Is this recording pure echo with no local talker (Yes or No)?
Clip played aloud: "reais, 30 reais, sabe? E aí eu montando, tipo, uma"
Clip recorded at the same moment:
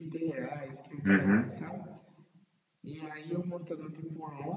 No